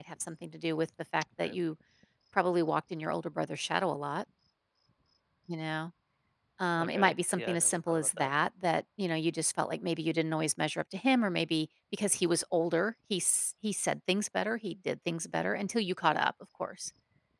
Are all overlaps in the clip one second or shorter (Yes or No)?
No